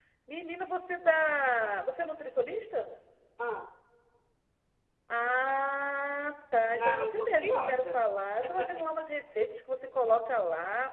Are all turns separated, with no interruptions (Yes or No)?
No